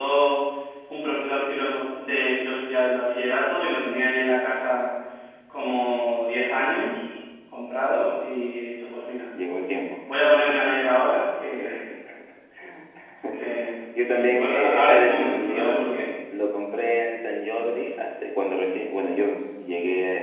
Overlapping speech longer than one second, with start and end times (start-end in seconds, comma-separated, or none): 14.0-15.9